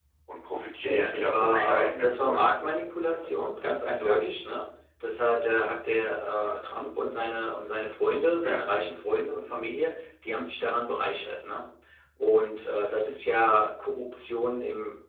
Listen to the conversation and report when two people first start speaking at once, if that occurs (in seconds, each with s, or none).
0.8 s